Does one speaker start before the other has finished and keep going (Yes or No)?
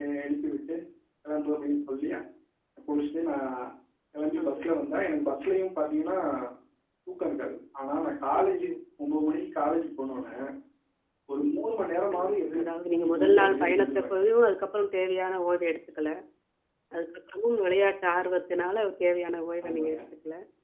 Yes